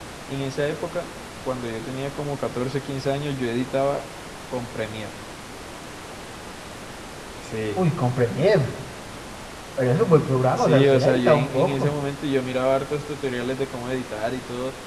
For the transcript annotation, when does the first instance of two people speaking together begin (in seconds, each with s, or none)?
10.6 s